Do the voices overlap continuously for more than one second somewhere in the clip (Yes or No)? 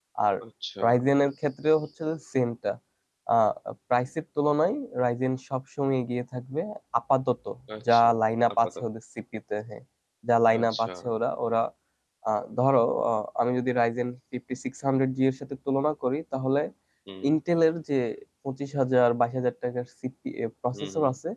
No